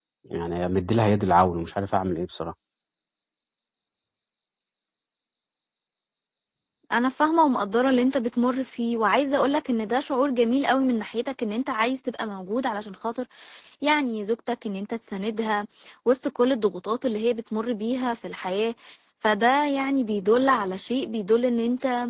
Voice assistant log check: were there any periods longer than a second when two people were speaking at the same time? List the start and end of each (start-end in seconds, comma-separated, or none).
none